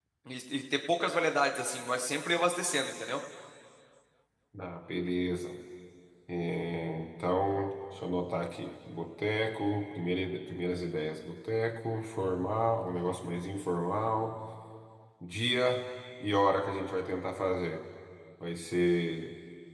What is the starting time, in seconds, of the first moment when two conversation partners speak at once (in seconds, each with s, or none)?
none